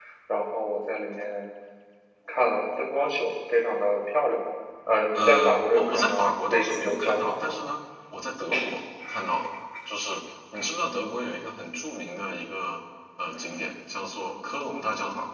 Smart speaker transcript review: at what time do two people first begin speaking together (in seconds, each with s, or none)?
5.1 s